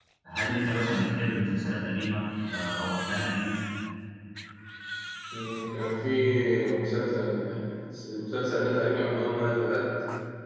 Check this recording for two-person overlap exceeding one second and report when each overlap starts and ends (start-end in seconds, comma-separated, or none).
none